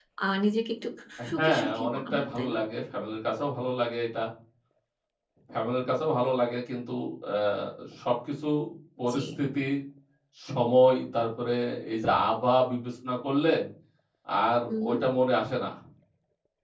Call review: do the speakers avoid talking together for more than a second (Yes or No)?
No